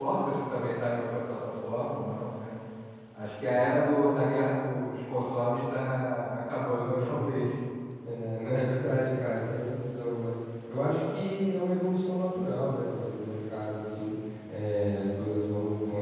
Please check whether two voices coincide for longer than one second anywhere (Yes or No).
No